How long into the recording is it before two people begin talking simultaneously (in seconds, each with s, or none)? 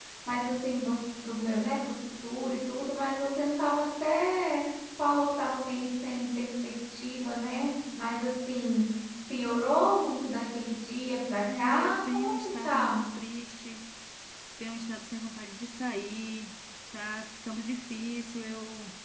11.4 s